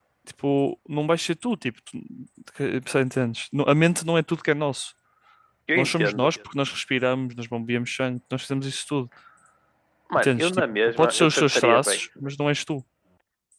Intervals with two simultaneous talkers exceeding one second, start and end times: 10.2-12.0

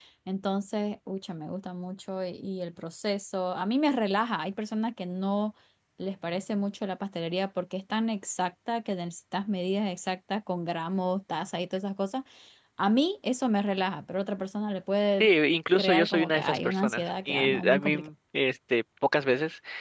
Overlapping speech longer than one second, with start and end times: 15.8-17.9

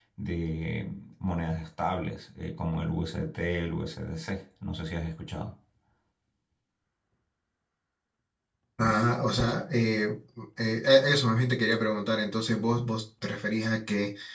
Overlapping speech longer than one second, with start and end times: none

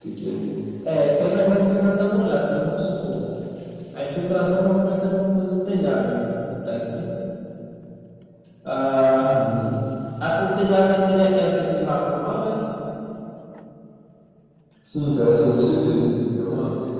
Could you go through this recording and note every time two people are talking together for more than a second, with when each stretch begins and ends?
none

